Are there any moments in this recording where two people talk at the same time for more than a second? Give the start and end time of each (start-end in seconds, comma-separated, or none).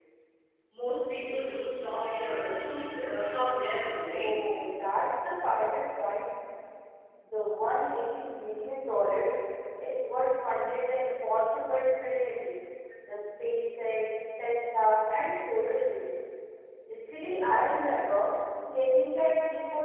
none